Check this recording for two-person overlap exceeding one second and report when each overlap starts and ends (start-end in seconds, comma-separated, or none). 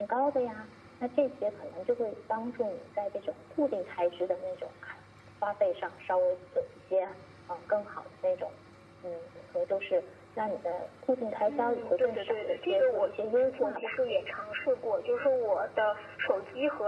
11.5-14.0